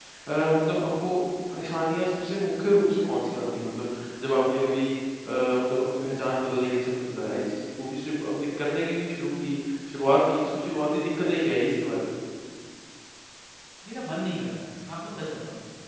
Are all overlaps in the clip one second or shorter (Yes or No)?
Yes